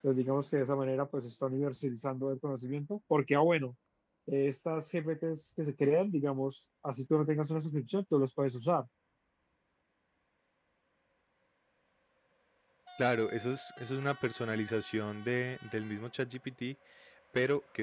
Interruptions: none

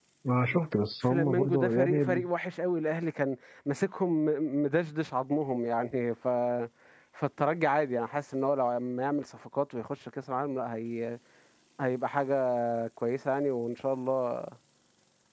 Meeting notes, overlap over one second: present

